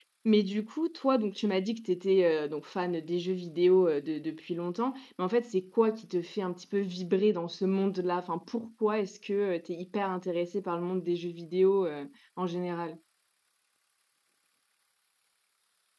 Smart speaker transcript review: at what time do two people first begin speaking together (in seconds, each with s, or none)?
none